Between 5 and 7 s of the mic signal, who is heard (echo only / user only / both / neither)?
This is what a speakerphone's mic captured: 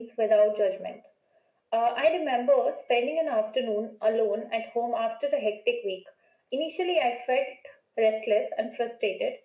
echo only